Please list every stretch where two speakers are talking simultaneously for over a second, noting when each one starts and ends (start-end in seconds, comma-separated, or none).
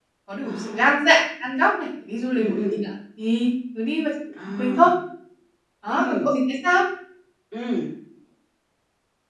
none